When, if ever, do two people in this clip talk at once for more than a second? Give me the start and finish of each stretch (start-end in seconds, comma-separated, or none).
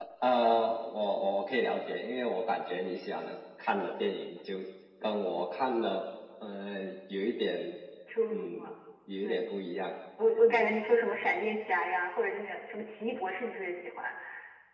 none